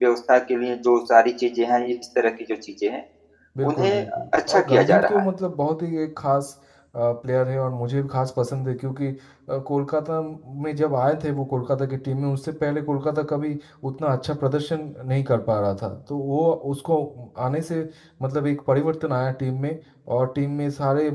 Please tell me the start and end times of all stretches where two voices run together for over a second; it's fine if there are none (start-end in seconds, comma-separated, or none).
3.7-5.2